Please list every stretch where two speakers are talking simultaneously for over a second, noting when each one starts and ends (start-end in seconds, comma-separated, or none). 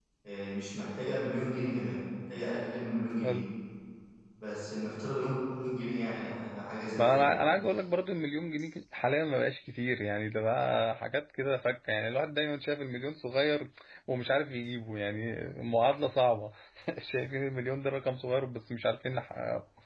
none